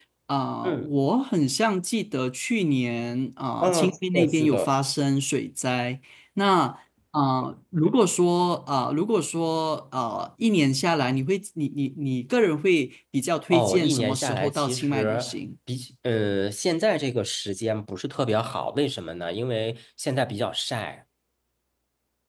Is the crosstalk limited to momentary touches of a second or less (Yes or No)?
No